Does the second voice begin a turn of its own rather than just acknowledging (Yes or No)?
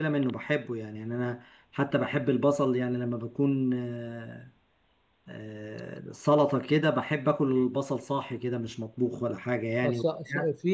Yes